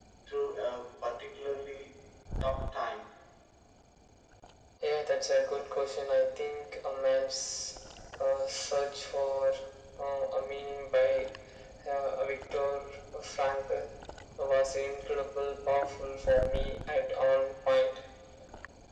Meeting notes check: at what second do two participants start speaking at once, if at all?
none

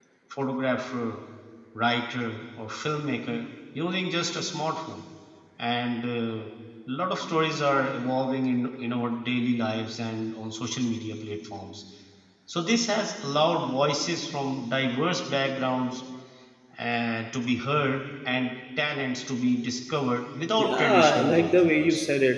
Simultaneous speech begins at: 20.6 s

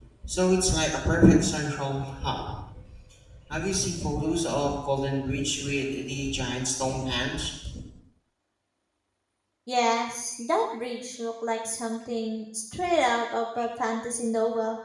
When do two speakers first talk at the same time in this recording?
none

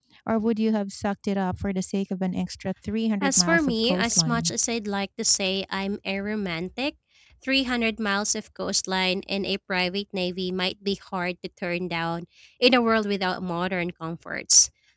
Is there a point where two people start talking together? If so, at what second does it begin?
3.2 s

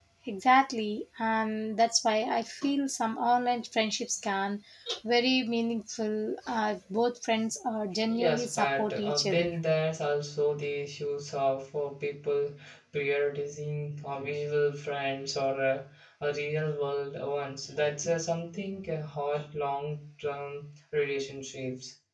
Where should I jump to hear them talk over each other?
8.1 s

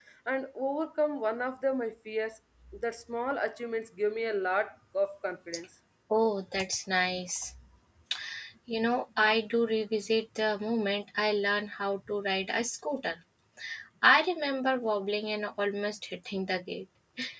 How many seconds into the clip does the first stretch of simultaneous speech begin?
none

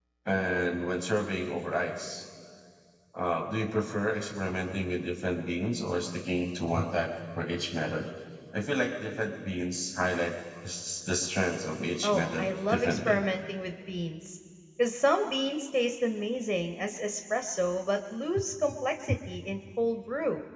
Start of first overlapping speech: 12.0 s

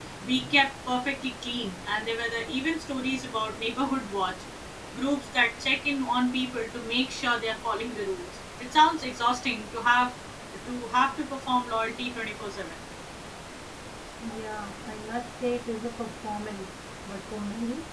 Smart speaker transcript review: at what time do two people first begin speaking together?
none

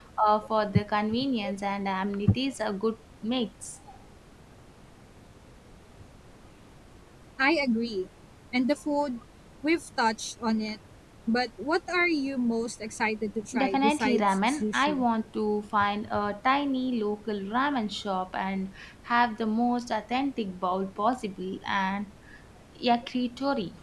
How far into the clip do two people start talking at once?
13.5 s

